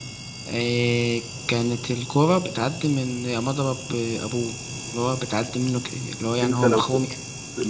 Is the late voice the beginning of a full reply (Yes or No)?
Yes